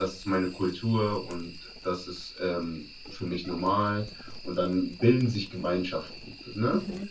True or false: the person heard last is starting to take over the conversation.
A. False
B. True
B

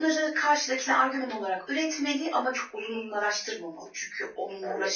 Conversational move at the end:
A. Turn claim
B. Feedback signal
A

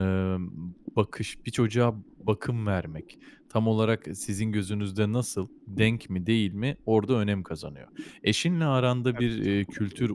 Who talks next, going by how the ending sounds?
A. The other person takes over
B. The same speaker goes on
B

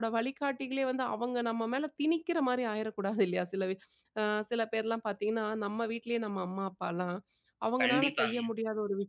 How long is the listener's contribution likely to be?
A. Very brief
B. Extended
A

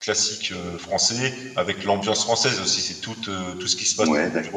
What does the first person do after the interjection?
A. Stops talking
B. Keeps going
B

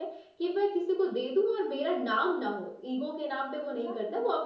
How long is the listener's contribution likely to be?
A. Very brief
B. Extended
A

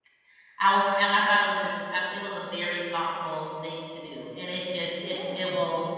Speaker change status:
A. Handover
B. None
B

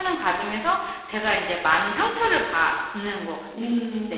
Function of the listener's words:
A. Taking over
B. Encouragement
A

